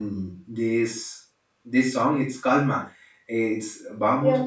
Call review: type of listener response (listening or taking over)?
listening